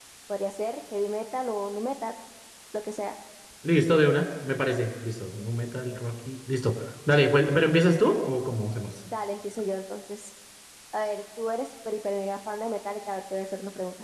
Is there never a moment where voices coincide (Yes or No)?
Yes